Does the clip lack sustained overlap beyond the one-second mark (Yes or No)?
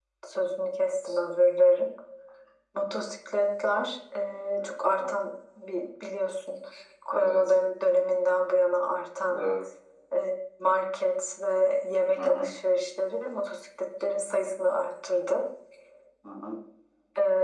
Yes